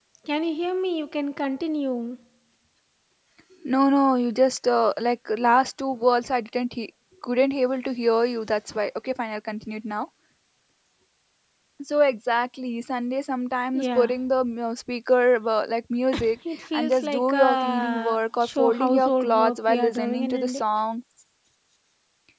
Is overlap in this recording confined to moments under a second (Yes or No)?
No